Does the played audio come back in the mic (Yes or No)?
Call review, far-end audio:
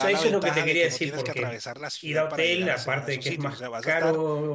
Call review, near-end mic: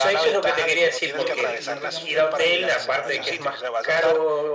Yes